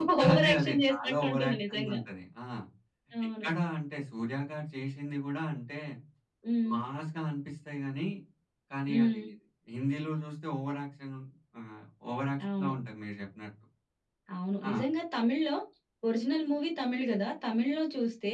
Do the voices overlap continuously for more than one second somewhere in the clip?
Yes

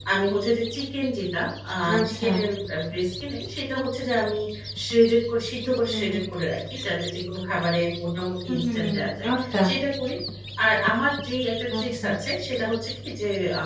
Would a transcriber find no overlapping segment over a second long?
Yes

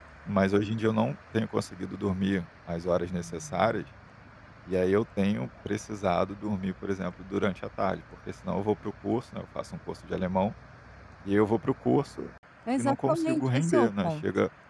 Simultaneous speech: Yes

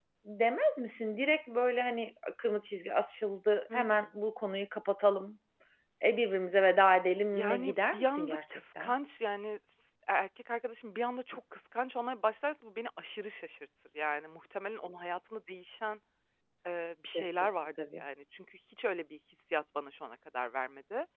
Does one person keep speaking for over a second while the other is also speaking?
Yes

